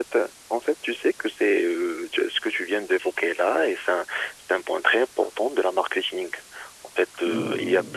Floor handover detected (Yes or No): No